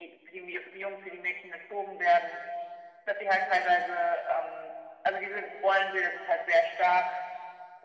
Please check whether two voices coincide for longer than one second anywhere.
No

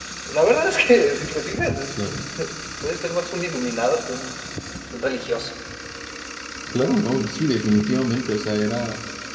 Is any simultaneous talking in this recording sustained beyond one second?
No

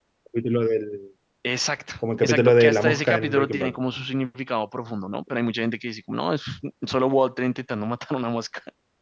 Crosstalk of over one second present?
Yes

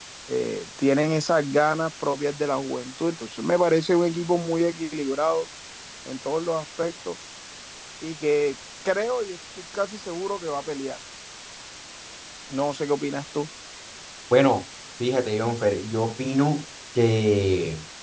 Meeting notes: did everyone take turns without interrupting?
Yes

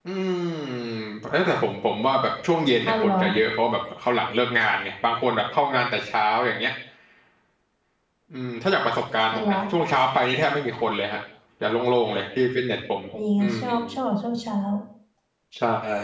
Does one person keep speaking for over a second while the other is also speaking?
No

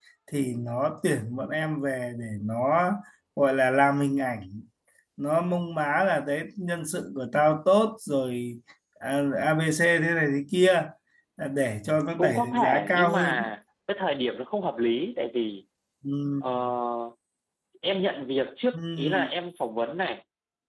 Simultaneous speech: Yes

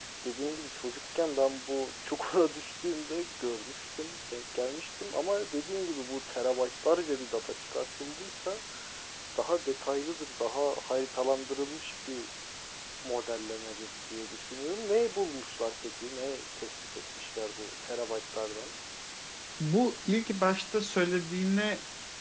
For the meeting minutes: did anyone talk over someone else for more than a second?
No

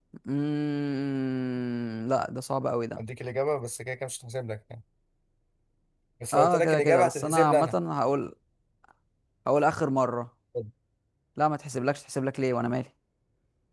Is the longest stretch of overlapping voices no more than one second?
No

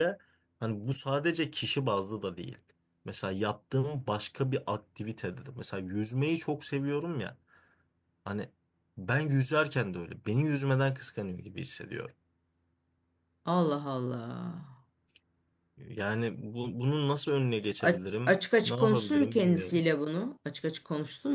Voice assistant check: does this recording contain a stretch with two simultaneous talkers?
Yes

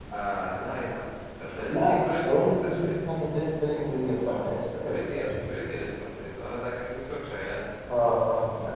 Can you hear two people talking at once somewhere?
Yes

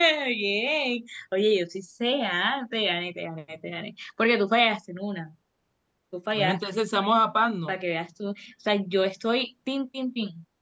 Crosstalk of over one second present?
No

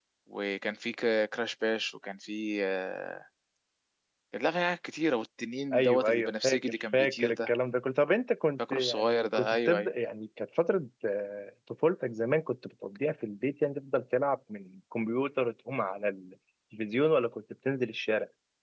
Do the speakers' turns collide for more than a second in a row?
Yes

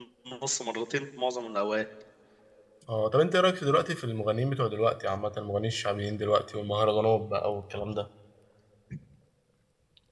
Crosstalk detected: No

